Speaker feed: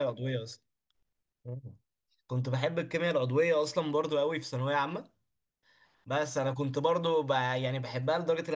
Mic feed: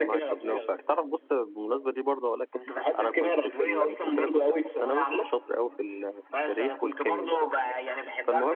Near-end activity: present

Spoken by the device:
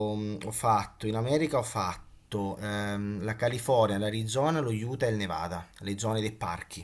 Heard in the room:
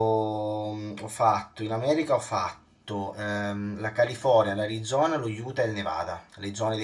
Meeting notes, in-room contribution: none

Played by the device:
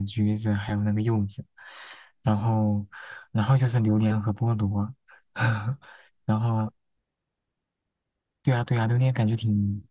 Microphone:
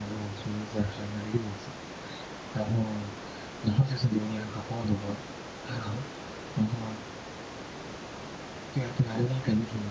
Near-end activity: none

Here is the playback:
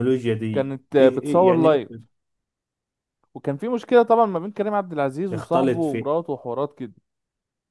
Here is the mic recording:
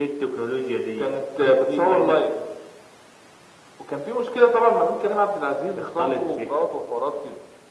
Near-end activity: none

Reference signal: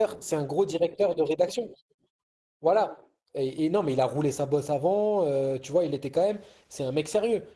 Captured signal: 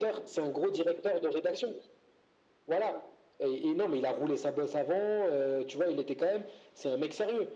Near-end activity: none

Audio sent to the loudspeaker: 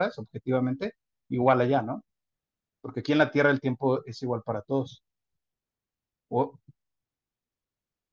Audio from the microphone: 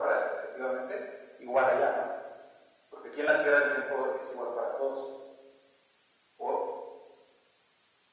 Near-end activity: none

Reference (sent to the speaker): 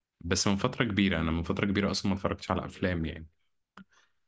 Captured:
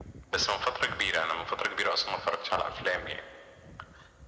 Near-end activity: none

